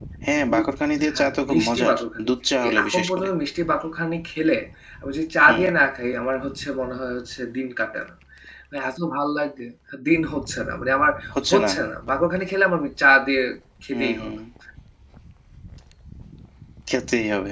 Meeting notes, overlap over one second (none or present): present